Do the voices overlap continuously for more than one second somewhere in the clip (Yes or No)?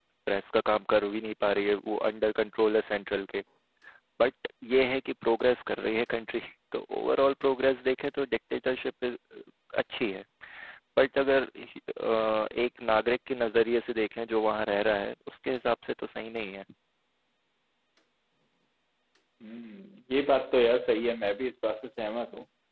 No